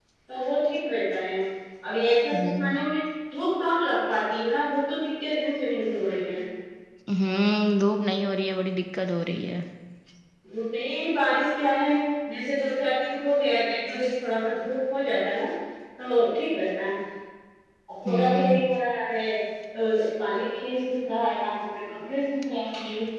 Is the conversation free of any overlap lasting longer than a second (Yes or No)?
Yes